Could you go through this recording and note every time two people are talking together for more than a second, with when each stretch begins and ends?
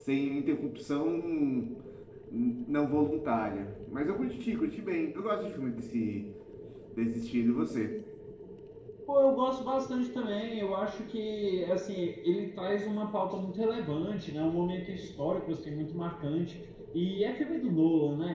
none

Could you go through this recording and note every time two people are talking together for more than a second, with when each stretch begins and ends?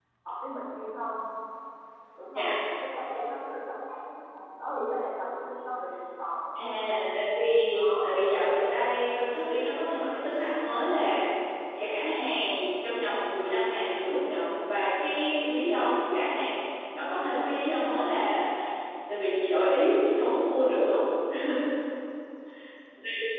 none

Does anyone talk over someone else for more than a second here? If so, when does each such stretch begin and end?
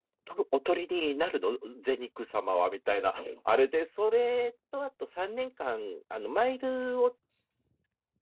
none

